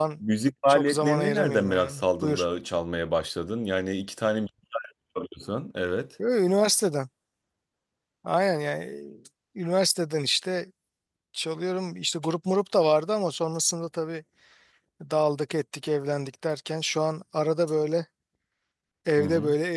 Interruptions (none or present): present